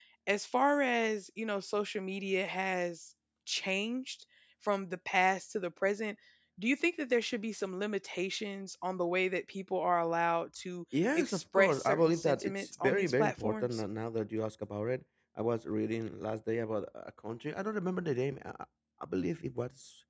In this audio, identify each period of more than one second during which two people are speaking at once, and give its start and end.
11.2-13.8

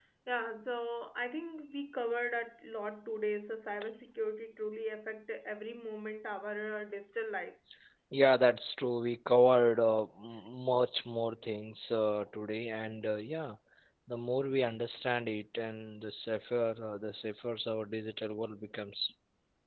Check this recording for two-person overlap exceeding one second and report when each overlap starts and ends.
none

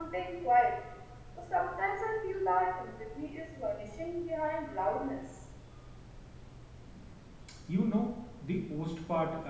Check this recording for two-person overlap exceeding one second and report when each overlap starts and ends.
none

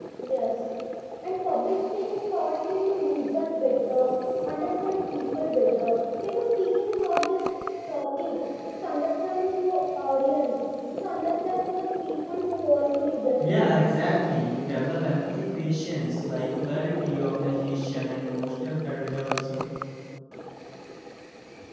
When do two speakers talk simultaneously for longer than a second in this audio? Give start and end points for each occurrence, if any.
none

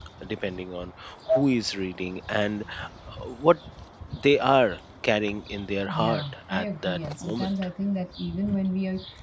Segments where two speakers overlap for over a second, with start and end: 5.9-7.5

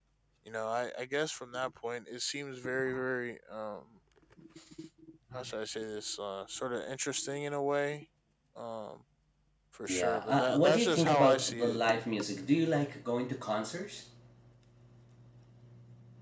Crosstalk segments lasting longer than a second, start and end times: 9.9-11.8

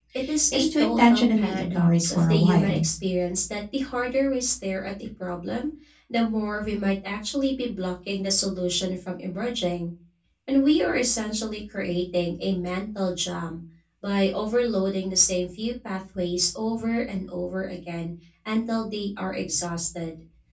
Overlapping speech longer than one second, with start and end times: 0.5-2.8

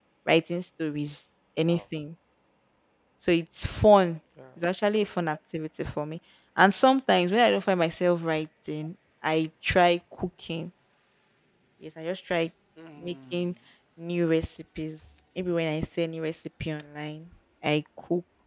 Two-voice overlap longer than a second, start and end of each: none

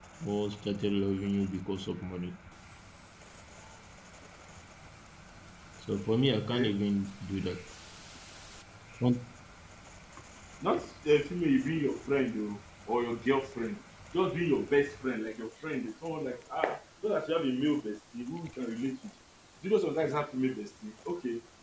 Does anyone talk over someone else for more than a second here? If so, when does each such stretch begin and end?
none

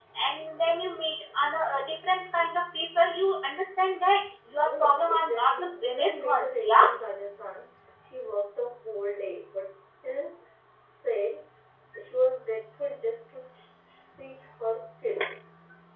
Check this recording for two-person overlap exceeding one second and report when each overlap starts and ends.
4.7-6.8

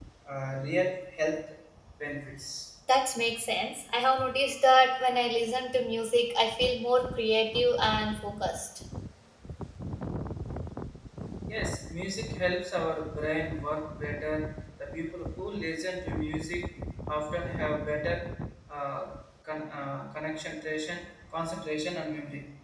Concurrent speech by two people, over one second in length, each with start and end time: none

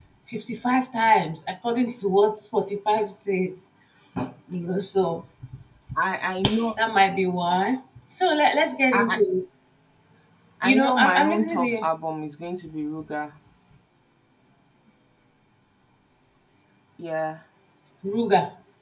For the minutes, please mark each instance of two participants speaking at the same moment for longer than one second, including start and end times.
10.6-11.9

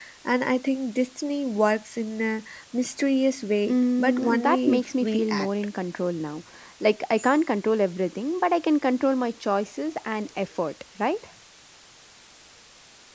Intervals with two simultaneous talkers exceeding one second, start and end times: 3.7-5.5

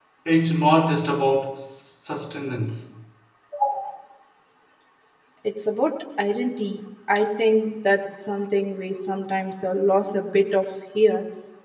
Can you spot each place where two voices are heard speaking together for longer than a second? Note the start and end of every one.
none

